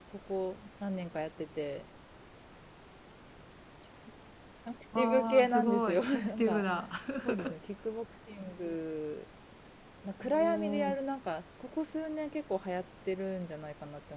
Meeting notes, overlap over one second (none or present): present